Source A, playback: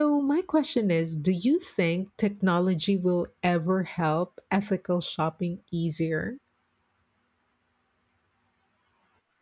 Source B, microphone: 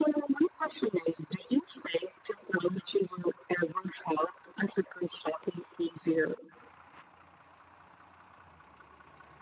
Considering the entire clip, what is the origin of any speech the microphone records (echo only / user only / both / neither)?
echo only